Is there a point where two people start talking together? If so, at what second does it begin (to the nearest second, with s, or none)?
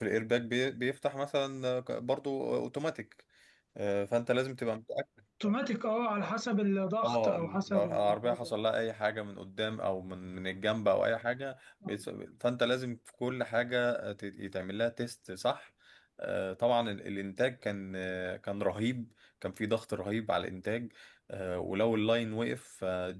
7 s